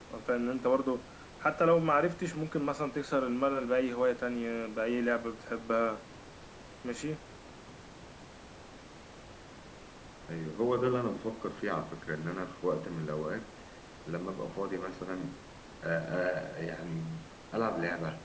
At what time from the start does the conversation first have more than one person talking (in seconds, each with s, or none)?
none